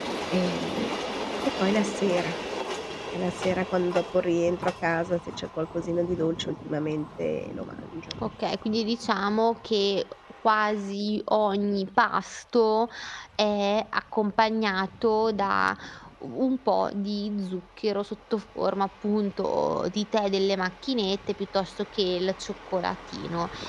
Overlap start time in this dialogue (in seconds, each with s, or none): none